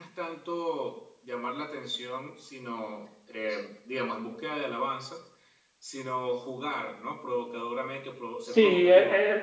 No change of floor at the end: No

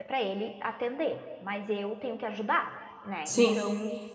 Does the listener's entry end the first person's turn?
No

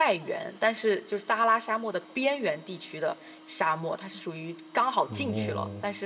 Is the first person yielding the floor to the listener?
No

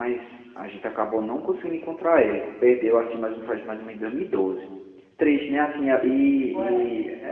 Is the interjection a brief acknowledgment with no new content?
Yes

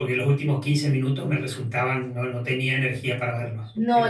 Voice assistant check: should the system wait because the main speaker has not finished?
No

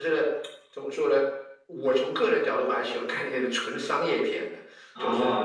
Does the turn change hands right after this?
Yes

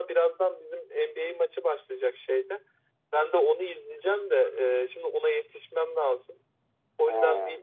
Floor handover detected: No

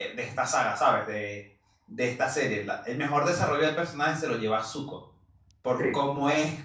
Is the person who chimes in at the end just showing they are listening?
Yes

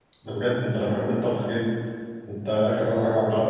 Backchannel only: Yes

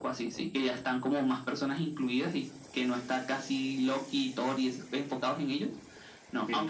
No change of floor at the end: Yes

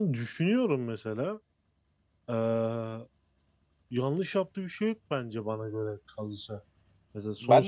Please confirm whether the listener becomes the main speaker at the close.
Yes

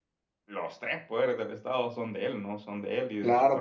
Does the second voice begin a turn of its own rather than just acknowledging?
Yes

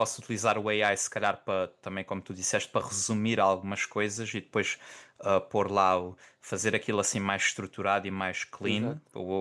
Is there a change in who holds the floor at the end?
No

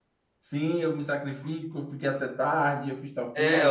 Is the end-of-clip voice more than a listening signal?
Yes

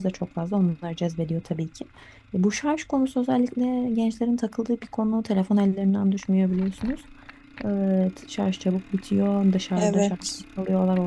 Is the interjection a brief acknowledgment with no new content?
Yes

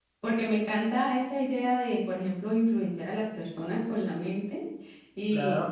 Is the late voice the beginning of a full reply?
No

